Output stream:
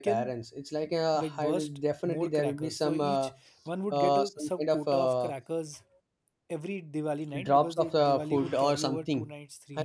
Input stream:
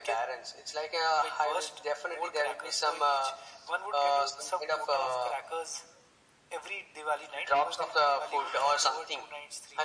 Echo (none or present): present